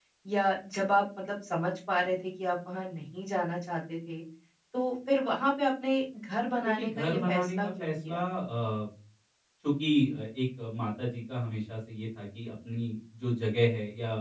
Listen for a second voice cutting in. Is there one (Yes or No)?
Yes